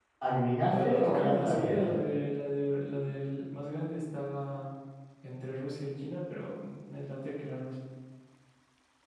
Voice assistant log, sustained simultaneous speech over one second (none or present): present